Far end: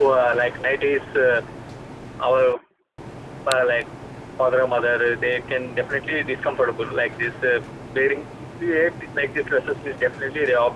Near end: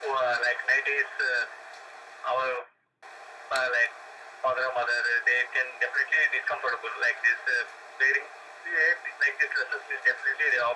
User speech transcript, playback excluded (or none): none